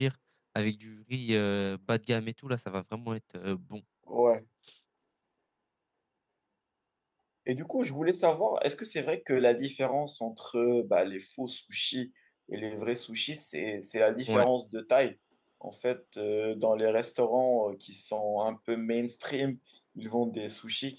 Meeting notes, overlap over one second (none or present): none